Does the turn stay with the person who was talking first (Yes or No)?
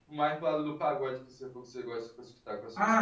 No